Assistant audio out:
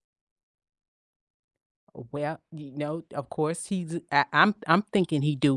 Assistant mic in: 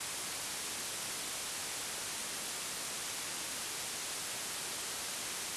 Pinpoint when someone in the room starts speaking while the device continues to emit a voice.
none

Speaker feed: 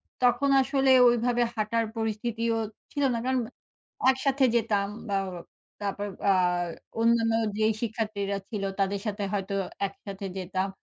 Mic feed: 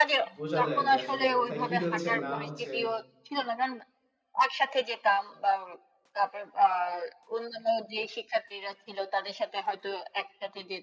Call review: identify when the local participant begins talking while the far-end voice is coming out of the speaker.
0.4 s

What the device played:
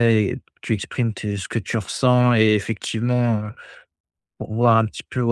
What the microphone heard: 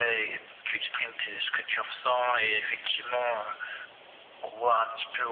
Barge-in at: none

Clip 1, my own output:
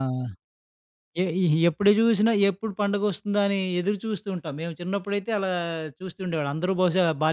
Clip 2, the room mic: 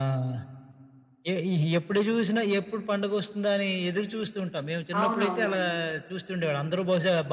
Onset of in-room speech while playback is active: 5.0 s

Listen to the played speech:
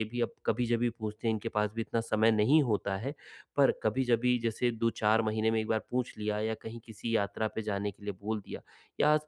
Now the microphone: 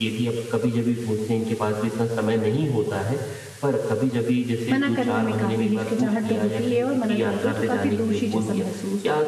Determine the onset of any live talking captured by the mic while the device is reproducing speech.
4.7 s

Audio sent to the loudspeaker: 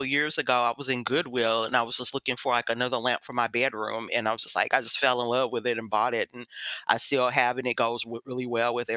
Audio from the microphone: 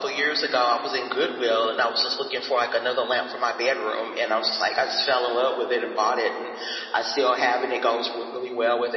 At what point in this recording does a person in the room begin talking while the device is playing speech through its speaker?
none

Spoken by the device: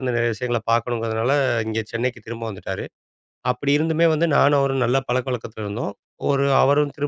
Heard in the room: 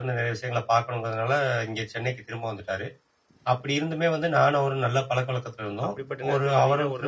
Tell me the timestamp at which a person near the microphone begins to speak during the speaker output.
5.8 s

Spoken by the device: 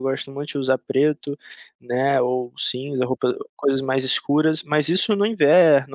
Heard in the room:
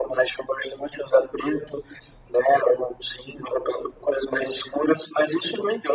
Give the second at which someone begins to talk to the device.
none

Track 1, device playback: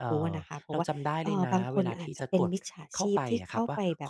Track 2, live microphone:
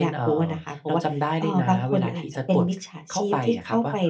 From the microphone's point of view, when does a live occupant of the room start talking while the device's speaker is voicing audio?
none

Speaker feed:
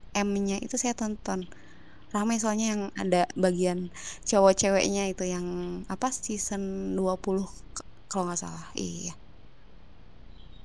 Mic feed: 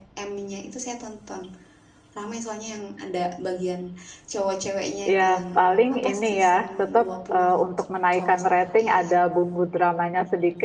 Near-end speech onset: 5.0 s

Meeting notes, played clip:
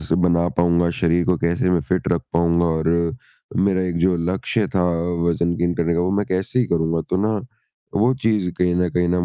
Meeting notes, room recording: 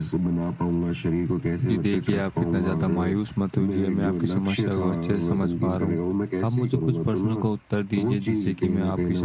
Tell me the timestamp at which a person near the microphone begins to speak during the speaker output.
1.6 s

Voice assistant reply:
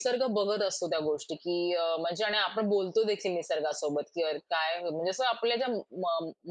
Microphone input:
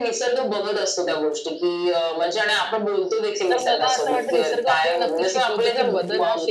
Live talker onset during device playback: 3.5 s

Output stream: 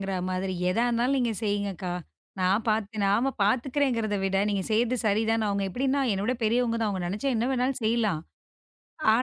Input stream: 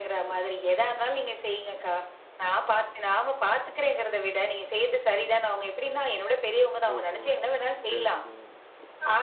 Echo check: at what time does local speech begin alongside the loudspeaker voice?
6.9 s

